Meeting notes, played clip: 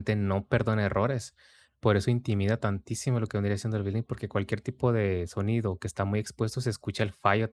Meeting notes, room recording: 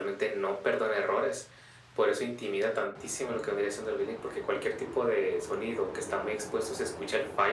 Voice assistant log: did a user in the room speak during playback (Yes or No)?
No